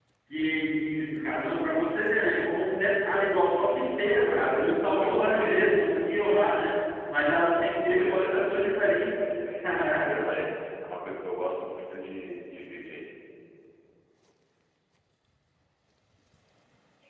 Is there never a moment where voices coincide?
No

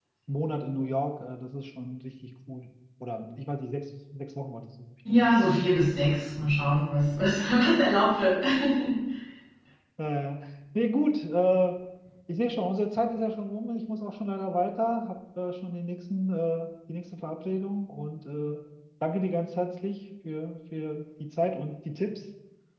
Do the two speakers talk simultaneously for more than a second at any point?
No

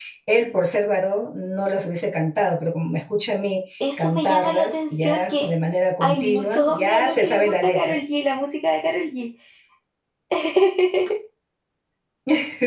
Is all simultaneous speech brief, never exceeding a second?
No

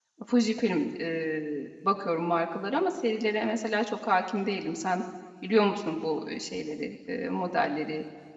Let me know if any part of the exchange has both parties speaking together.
No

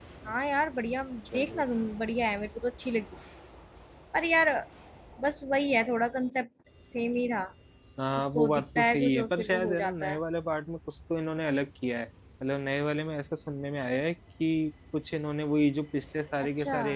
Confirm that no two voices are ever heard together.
No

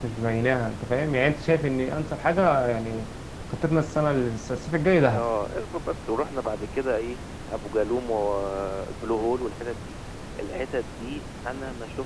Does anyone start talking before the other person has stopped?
No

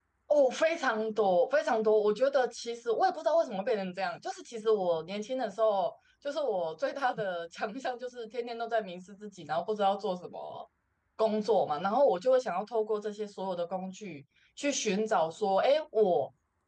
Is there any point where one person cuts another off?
No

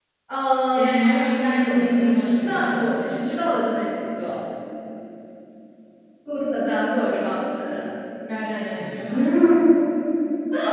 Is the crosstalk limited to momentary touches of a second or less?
No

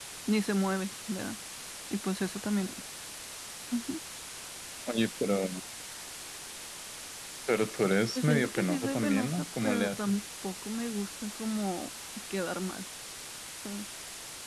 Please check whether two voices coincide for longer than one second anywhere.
Yes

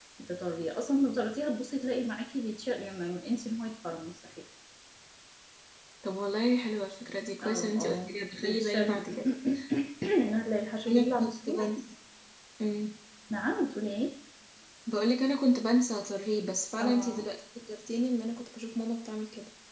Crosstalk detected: Yes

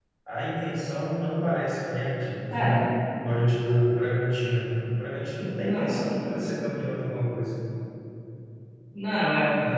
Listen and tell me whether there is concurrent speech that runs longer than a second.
No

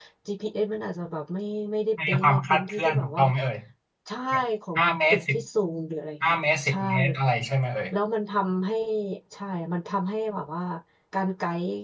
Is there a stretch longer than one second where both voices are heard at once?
Yes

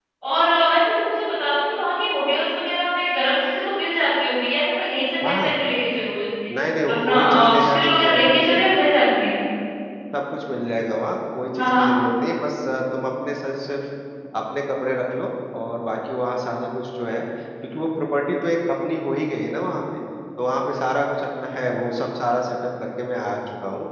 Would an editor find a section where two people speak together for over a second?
Yes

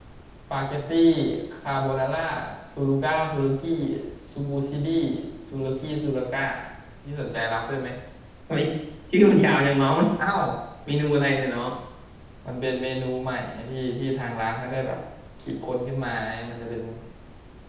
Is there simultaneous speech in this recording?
No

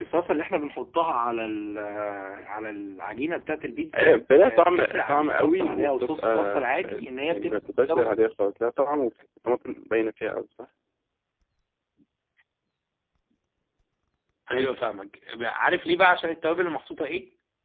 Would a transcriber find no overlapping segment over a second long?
No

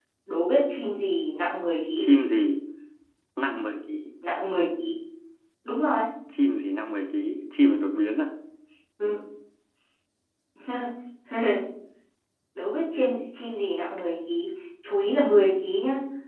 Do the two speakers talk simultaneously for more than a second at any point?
No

